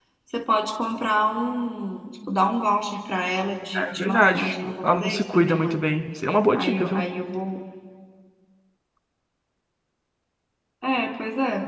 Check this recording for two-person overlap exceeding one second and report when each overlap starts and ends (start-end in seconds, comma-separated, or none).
3.8-5.8